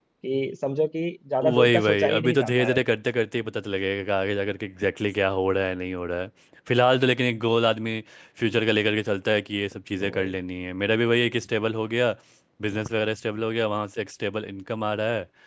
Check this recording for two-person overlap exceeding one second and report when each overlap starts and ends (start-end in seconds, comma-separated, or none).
1.4-2.8